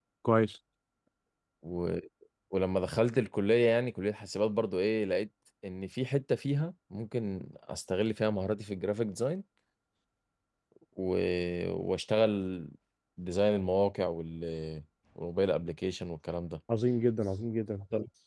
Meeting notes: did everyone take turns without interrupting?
Yes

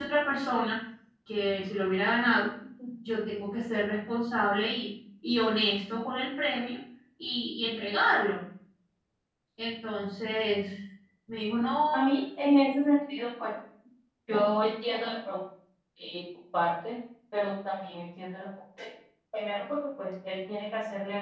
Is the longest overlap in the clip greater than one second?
No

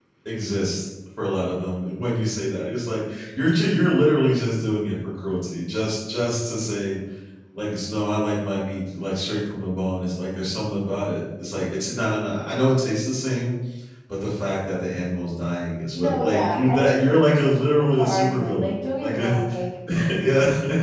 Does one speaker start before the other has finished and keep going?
Yes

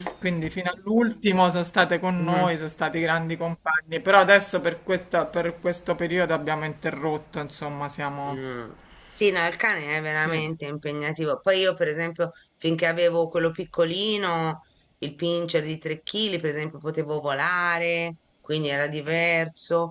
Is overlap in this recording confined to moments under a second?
Yes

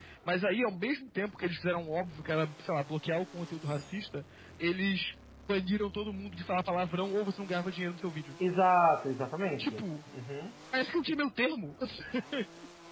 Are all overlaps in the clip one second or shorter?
Yes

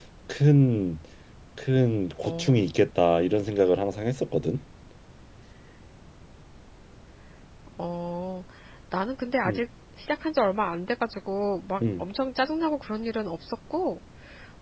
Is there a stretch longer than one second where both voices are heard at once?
No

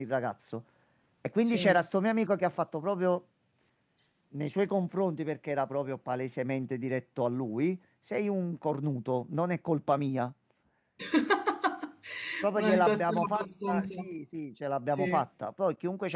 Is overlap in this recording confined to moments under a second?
No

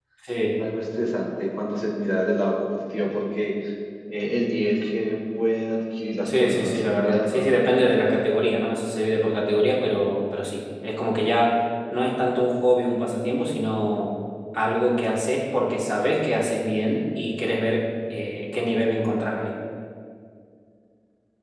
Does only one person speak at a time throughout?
No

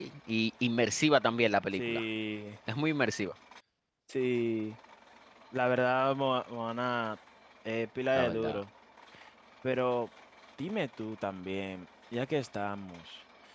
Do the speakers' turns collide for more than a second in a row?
No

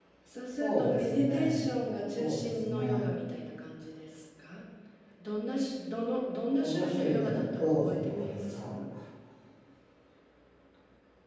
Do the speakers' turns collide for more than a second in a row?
Yes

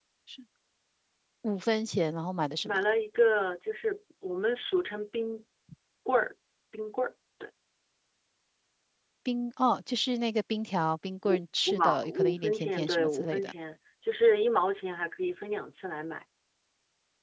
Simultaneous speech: Yes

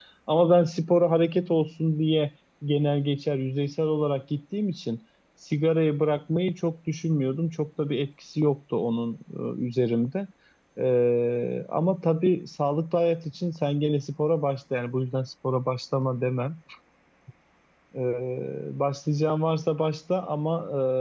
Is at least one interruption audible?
No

